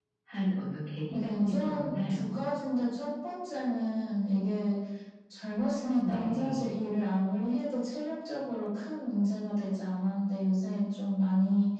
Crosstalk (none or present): present